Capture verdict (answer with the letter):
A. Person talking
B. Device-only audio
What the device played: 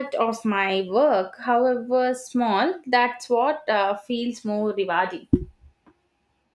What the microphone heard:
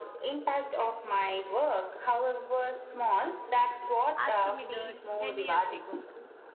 A